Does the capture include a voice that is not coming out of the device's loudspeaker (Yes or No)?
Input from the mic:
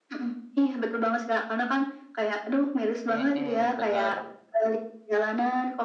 Yes